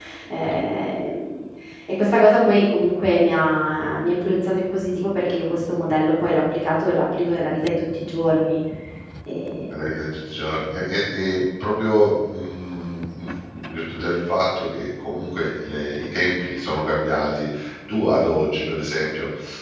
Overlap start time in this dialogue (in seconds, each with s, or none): none